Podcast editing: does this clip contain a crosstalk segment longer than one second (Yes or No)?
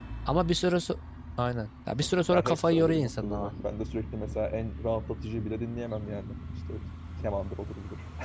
Yes